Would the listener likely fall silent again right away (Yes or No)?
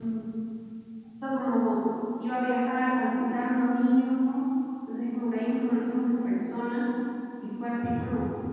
Yes